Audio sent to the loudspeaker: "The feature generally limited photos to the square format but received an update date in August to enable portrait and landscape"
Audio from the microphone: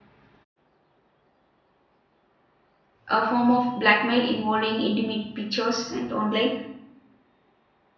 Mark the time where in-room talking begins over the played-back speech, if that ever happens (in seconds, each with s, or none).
3.1 s